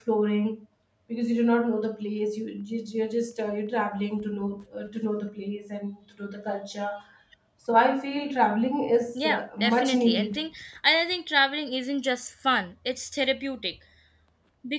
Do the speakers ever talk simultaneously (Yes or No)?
Yes